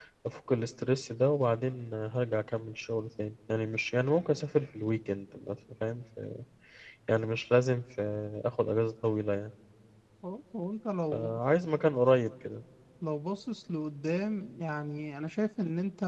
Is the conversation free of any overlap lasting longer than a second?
Yes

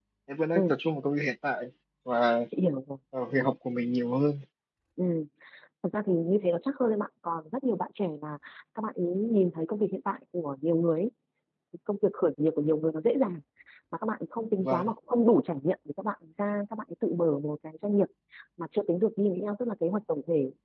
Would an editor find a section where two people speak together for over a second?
No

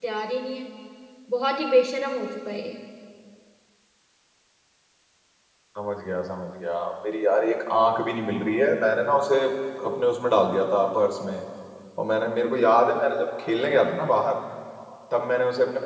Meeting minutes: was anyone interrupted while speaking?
No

